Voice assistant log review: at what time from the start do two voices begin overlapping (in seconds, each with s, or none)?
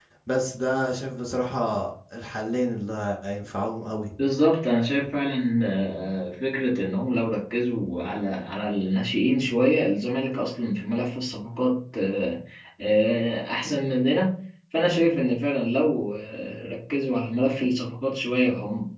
none